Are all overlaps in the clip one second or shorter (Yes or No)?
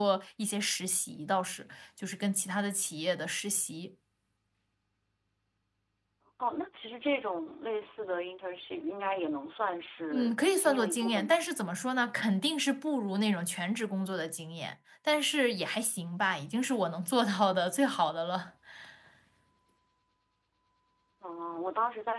No